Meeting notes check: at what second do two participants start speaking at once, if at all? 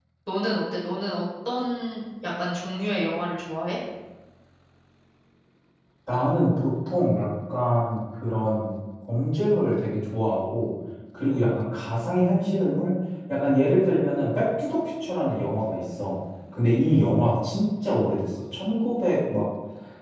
none

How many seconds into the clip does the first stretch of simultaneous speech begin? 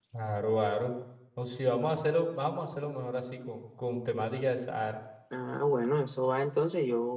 none

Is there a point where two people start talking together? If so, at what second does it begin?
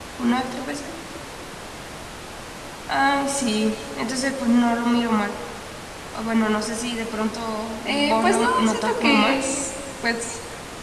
7.8 s

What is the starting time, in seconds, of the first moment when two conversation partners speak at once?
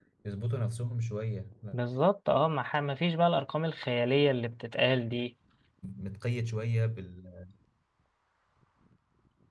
none

